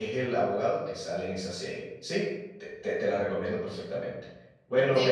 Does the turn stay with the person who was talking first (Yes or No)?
Yes